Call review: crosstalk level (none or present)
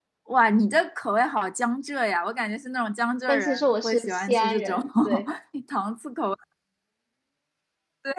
present